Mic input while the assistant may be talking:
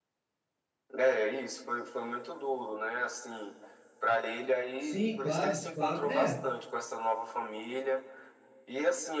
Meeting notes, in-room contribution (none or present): present